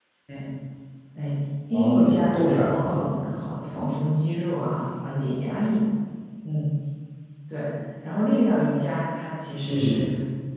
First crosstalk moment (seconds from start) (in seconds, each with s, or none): 1.7 s